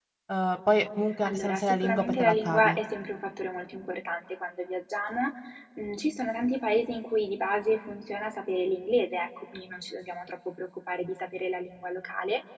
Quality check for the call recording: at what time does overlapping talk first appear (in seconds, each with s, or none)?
1.3 s